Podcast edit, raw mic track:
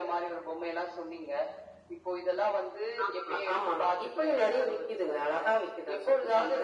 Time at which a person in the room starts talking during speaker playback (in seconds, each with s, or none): none